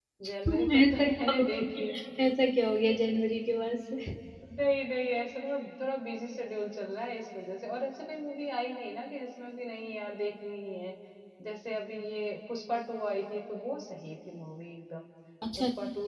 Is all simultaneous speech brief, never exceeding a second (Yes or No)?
No